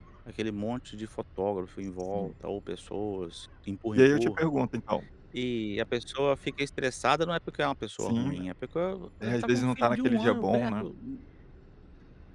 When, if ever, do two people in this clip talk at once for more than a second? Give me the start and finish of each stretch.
9.2-10.9

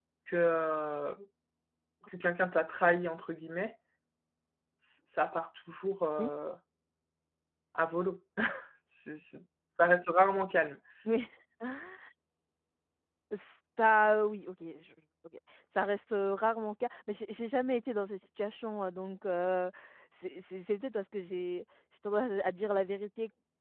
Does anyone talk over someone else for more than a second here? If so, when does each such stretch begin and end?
none

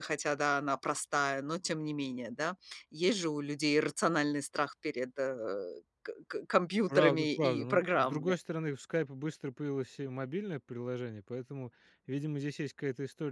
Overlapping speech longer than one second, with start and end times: 7.0-8.3

